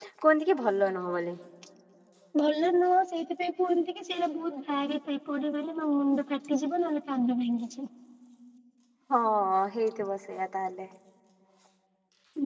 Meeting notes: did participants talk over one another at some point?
No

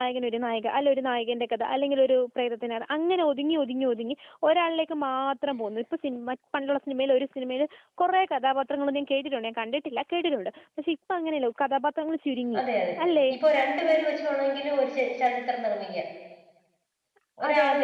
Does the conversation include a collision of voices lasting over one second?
No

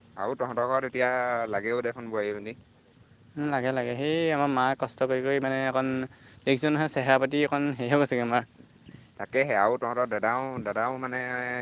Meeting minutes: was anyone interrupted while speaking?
No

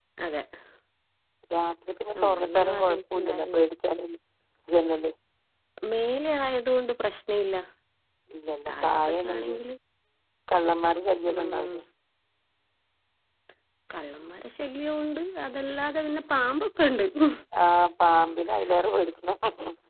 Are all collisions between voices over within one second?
No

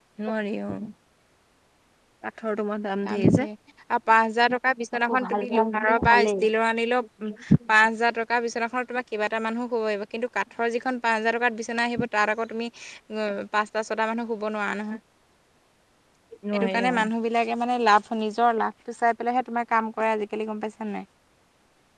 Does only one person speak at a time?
No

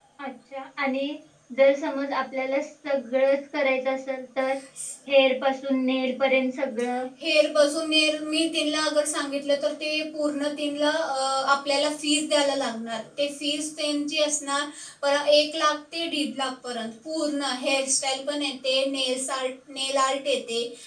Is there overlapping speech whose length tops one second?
No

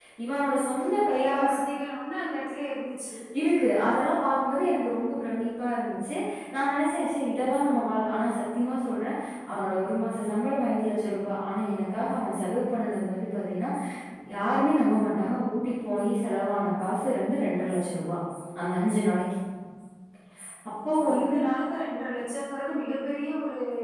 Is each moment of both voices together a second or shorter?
Yes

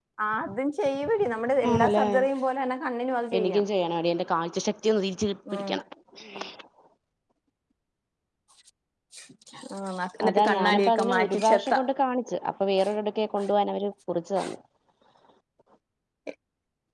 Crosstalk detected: Yes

